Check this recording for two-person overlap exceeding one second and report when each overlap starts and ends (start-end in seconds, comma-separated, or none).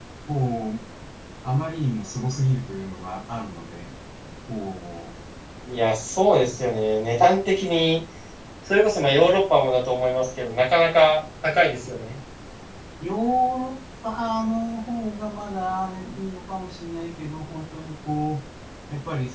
none